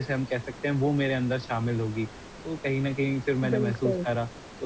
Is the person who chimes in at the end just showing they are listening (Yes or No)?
Yes